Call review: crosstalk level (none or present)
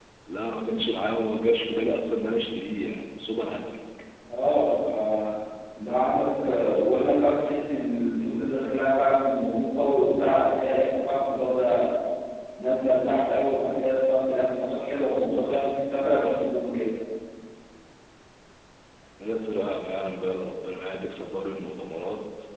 none